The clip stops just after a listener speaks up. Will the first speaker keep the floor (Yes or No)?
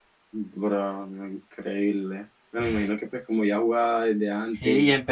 No